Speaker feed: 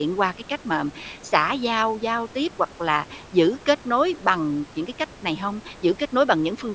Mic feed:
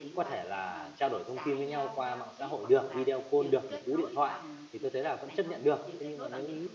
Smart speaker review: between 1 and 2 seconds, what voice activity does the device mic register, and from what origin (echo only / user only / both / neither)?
both